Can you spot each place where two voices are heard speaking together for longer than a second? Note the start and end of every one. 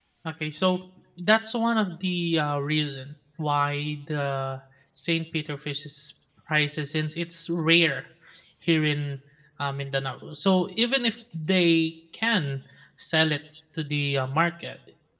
none

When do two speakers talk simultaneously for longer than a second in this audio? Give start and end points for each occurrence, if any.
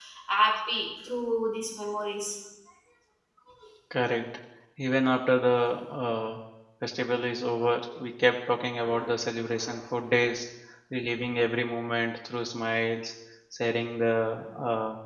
none

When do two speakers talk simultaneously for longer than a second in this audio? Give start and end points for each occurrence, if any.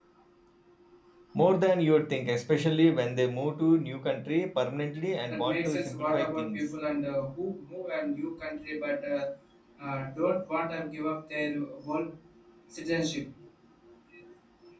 5.3-6.6

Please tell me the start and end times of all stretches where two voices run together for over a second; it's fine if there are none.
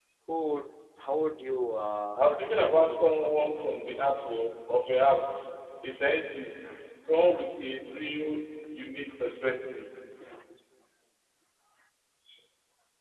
2.2-3.5

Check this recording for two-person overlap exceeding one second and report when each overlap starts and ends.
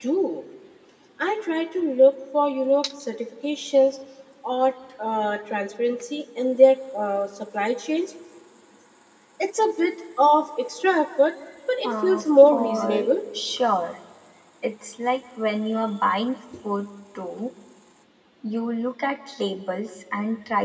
11.8-13.1

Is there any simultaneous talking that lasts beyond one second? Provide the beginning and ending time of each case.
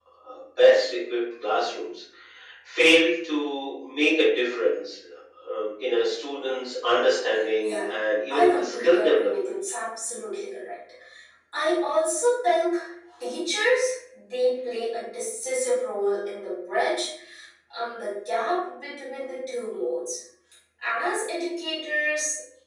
8.3-9.5

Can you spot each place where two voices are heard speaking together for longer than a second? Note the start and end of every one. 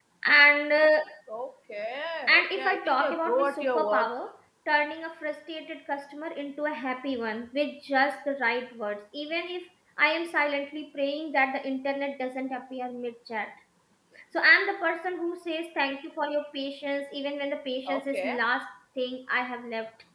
2.3-4.2

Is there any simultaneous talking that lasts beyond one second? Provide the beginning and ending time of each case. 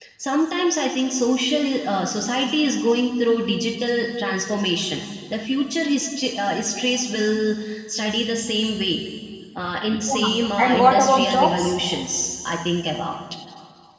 10.1-11.7

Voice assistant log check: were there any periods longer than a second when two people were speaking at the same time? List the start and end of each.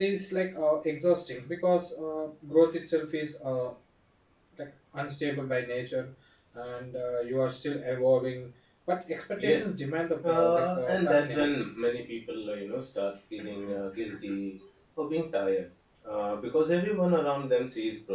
10.3-11.6

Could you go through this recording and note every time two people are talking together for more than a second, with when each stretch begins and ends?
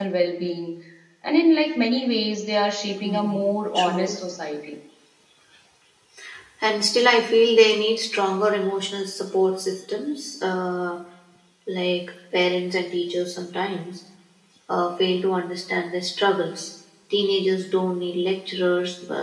3.0-4.2

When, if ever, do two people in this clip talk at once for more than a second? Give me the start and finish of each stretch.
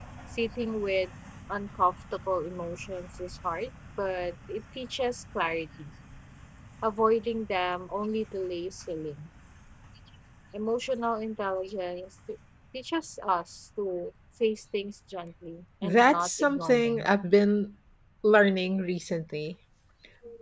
15.8-17.1

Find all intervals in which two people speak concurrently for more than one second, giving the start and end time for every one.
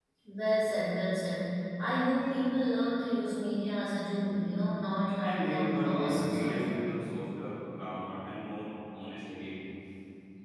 5.2-6.8

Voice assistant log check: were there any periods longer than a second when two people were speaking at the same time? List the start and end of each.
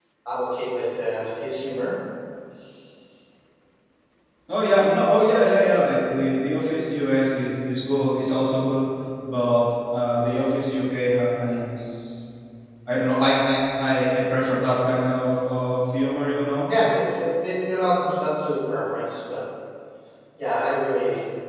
none

